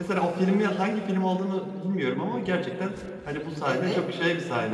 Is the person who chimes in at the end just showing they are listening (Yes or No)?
Yes